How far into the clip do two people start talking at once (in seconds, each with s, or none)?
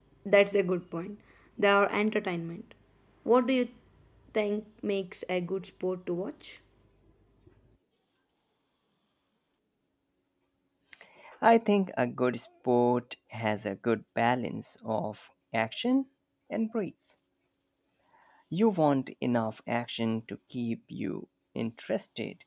none